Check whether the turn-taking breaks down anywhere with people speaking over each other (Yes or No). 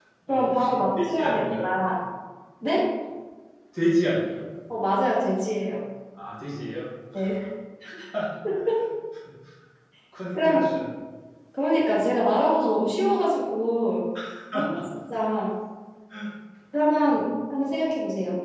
Yes